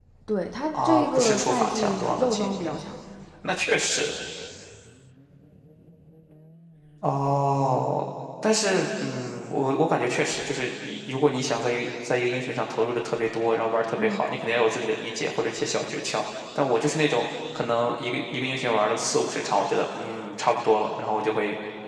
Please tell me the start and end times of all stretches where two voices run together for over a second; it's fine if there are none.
0.7-2.7

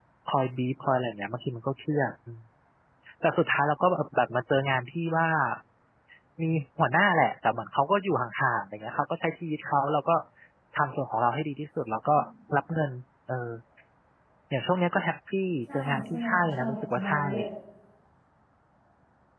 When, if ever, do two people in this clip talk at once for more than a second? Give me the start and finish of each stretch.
15.7-17.2

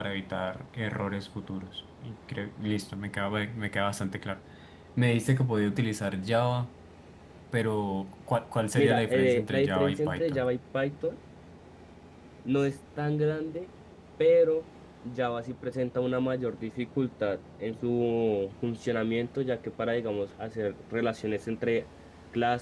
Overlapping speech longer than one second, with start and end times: 8.7-10.4

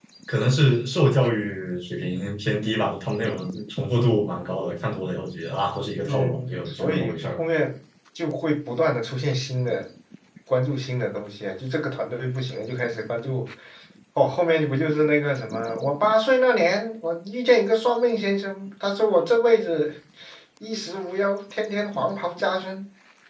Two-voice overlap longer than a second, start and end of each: 6.1-7.4

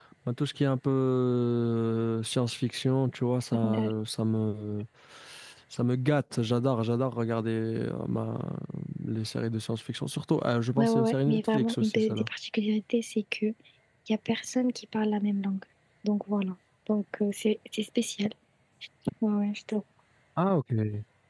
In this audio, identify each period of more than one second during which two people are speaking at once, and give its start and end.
10.8-12.3

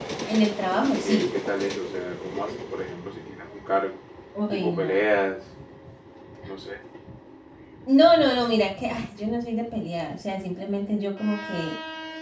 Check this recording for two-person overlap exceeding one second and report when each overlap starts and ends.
none

